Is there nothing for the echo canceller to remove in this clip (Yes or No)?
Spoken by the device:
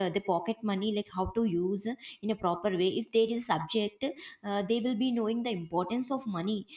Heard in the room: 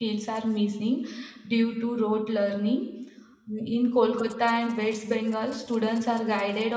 Yes